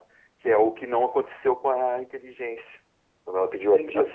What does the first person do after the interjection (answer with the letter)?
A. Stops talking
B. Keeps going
A